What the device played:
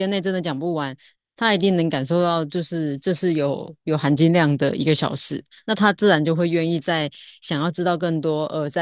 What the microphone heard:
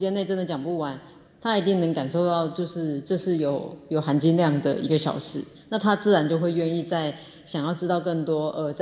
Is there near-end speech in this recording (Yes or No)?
No